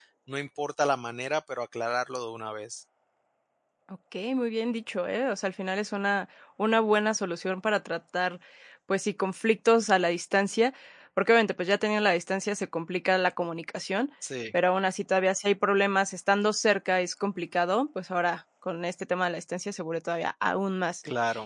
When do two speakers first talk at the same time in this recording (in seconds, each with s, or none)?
none